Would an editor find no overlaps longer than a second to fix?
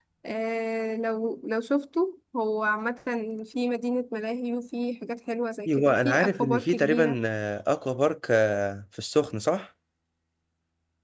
No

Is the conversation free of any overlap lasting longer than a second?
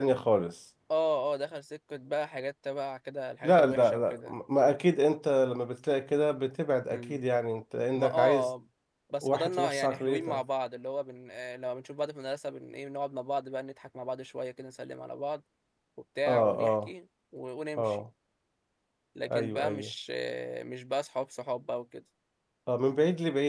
No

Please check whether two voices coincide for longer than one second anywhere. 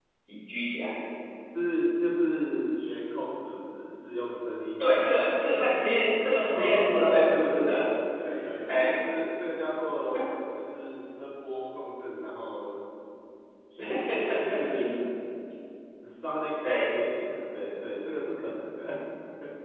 Yes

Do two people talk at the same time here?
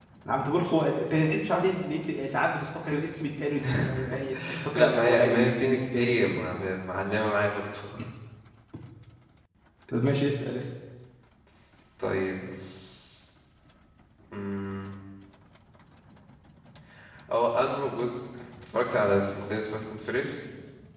Yes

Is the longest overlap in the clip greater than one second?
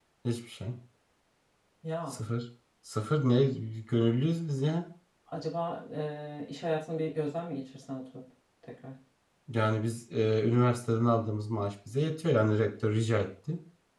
No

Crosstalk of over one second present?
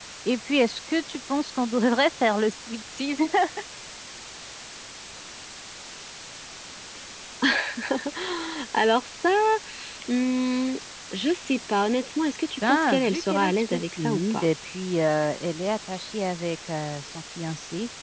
Yes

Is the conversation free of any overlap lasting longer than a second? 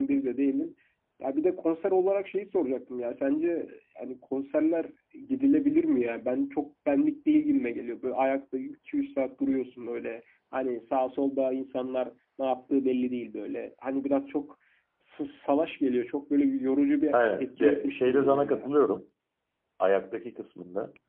No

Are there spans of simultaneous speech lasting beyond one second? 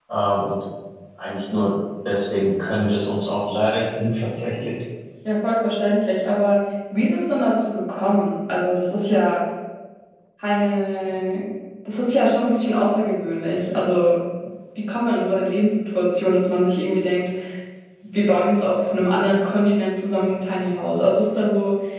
No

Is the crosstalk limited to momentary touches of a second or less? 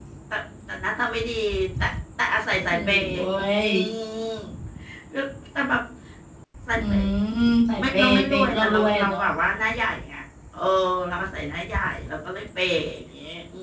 No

